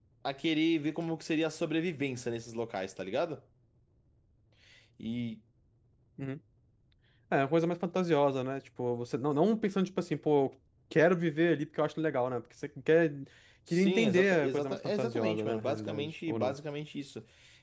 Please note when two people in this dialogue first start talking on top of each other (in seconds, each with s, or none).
13.7 s